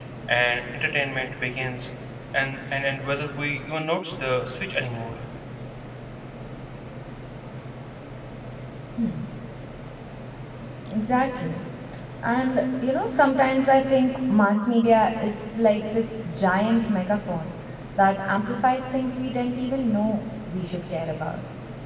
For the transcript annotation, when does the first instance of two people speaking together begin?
none

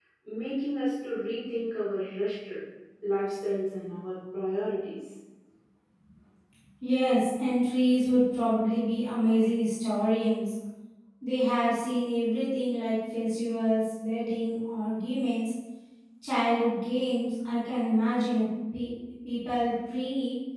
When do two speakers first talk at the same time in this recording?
none

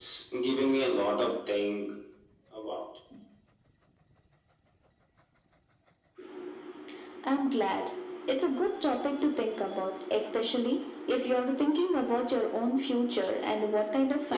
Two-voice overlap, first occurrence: none

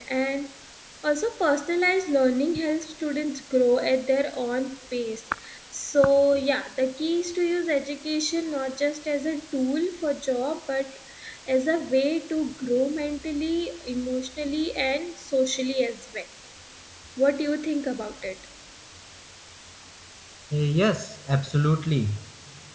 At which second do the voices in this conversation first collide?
none

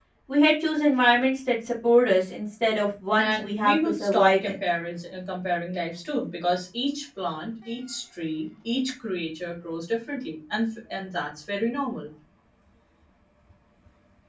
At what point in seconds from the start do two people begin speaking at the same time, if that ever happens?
3.2 s

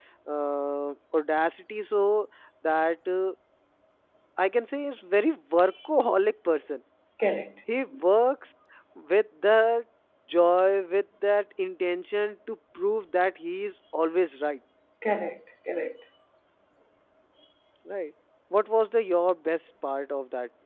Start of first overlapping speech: none

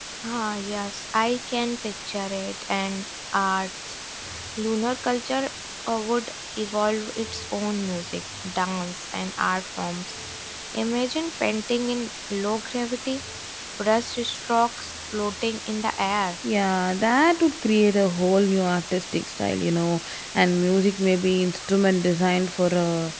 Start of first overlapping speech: none

